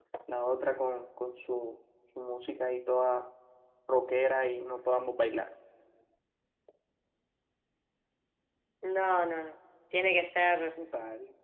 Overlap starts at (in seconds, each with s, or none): none